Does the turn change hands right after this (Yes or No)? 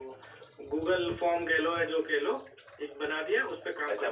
Yes